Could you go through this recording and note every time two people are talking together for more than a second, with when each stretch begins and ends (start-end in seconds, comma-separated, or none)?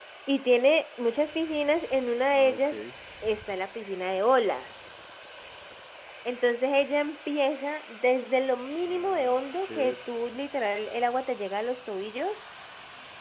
8.8-10.0